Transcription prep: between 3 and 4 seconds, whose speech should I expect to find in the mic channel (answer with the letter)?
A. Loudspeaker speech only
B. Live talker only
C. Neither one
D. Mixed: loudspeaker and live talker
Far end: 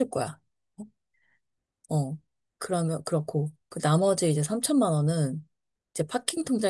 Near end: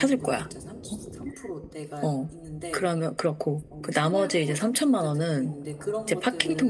D